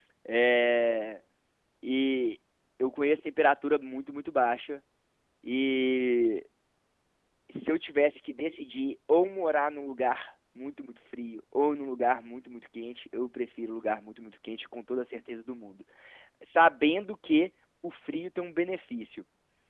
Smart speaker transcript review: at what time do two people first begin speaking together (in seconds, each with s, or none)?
none